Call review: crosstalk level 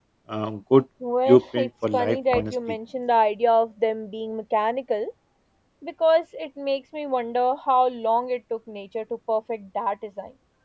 present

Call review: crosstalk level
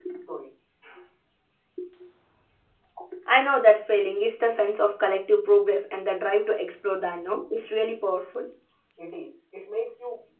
none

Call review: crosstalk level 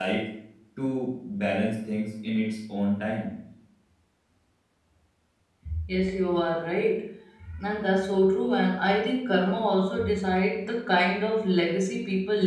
none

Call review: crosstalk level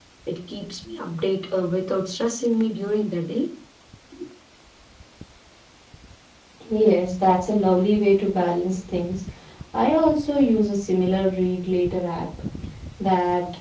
none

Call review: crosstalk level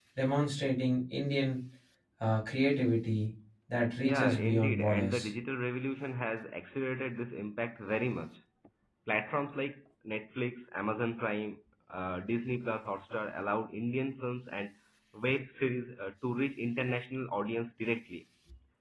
present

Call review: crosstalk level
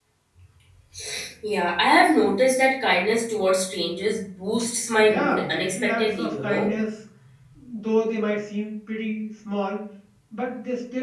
present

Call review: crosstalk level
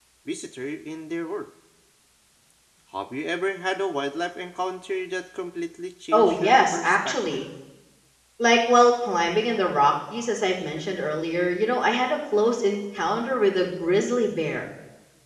present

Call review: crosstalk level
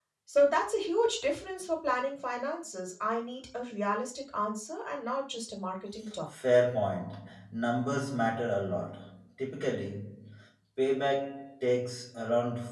none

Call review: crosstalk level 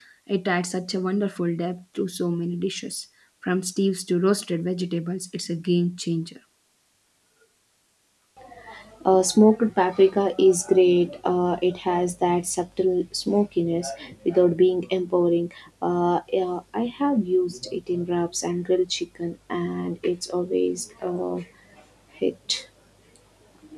none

